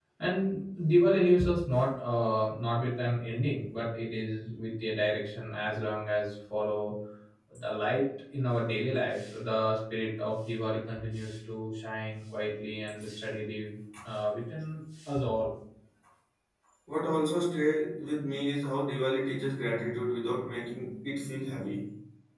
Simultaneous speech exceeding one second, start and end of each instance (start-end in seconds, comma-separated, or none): none